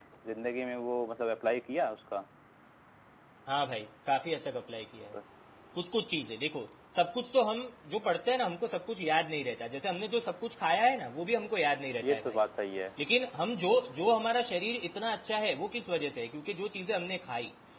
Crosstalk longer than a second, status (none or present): none